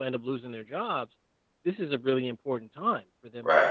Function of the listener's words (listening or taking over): listening